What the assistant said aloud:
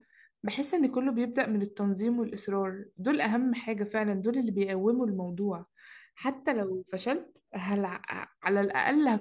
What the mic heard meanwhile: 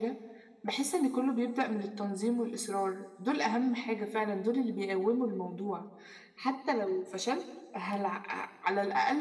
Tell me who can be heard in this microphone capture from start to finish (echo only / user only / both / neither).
echo only